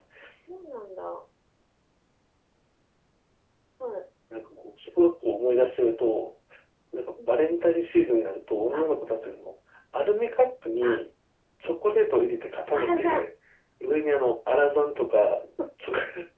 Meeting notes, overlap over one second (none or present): none